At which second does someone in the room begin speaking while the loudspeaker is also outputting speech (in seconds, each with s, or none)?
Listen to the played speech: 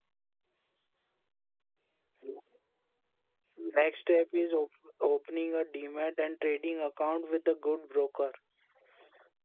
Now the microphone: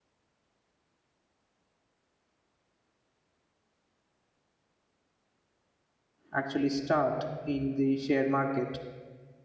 6.3 s